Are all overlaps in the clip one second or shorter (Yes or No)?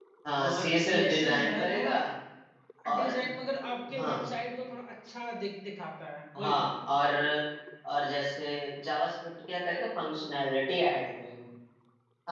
No